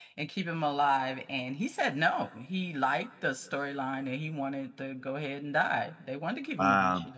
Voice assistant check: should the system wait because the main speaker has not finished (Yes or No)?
No